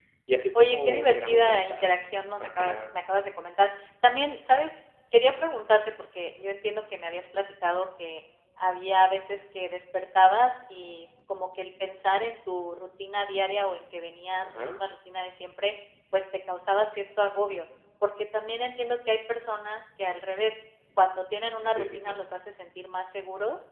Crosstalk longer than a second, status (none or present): present